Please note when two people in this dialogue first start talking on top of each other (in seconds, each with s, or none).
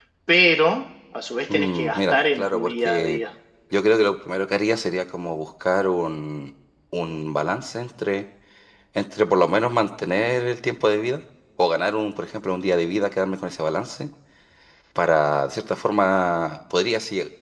1.5 s